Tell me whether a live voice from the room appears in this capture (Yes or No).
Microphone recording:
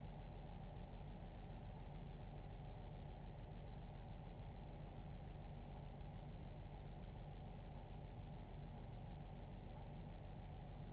No